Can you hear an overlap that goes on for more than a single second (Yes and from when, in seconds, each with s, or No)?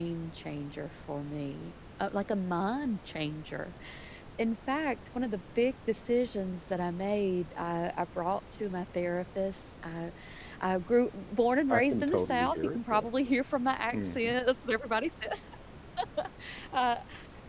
Yes, from 11.7 s